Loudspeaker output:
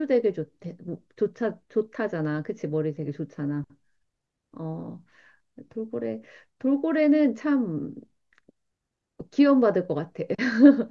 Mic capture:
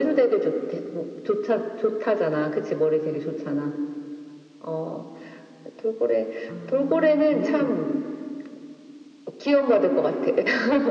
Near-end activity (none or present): present